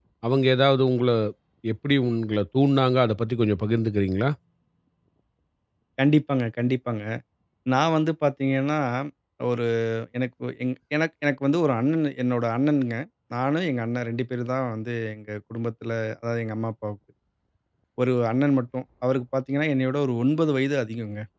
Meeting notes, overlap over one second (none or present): none